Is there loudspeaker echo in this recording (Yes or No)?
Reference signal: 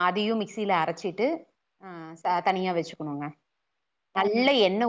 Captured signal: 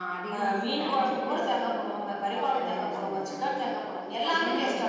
Yes